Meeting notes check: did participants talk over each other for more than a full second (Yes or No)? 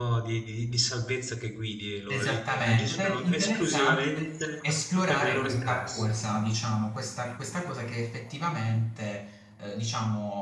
Yes